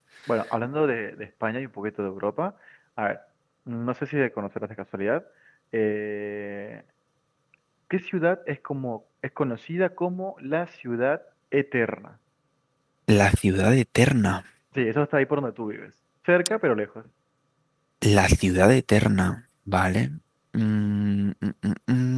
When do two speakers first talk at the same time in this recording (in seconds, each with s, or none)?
none